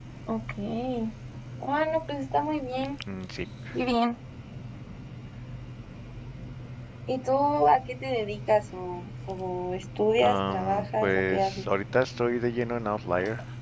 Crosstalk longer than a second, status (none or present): present